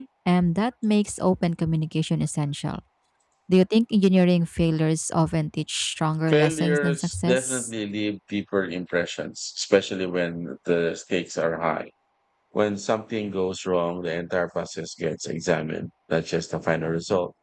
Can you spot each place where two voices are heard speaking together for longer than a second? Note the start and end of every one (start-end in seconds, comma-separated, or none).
6.3-7.7